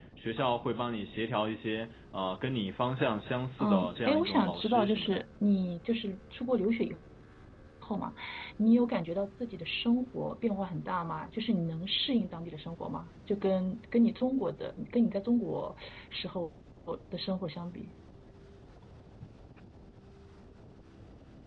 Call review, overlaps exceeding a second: present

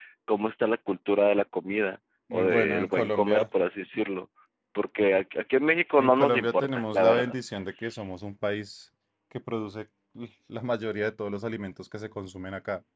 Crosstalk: present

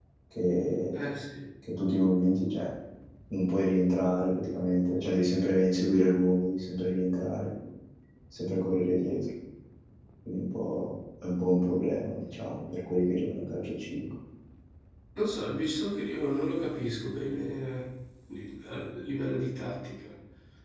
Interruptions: none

